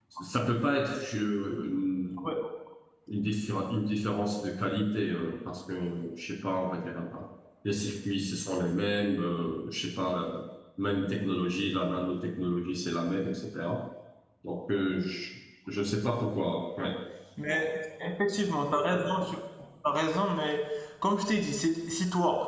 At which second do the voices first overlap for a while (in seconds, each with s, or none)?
none